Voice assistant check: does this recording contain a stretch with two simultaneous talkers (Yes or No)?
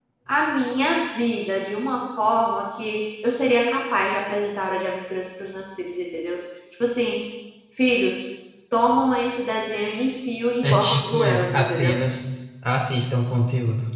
Yes